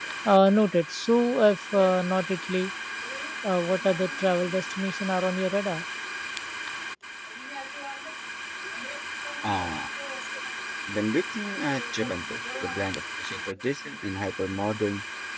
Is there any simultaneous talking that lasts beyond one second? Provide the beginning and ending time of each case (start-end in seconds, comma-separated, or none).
none